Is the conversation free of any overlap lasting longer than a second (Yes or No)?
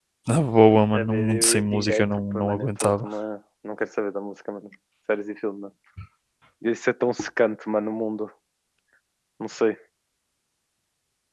No